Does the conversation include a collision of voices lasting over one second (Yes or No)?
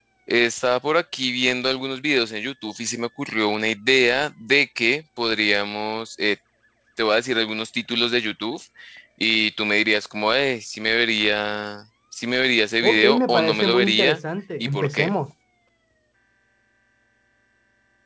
Yes